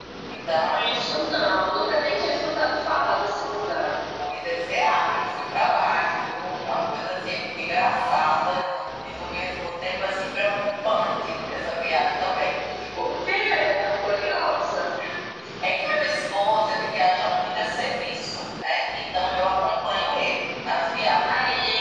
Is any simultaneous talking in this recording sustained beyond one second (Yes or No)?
No